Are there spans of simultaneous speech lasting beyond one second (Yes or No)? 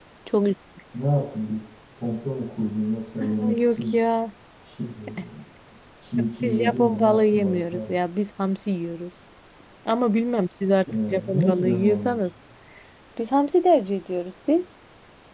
Yes